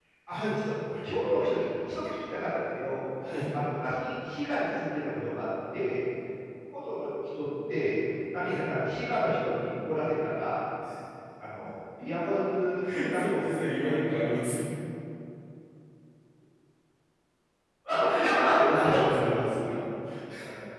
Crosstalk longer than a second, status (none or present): present